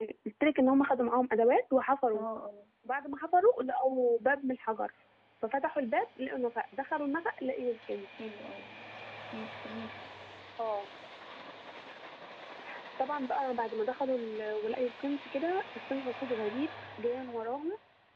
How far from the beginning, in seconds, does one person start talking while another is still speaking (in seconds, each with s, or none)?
none